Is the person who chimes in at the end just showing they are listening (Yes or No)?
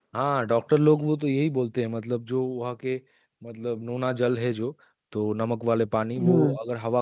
Yes